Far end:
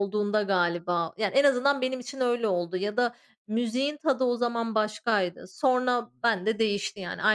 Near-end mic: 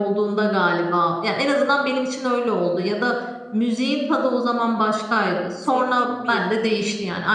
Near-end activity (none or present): present